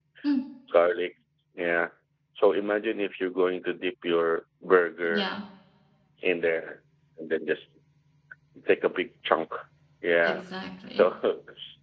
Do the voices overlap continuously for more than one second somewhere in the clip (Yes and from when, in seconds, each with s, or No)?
No